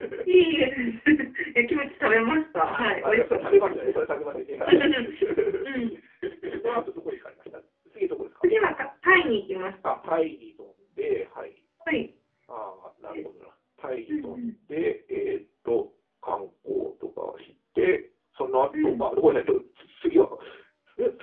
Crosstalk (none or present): present